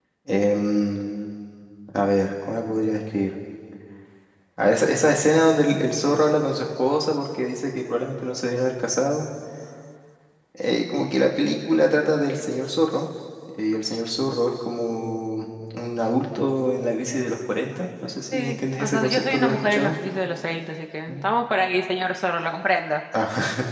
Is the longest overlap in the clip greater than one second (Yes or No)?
Yes